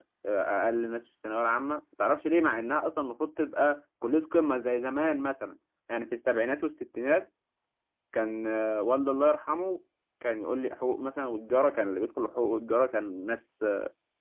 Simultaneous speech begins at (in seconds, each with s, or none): none